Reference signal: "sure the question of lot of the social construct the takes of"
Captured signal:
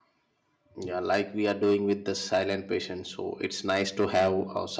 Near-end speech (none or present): present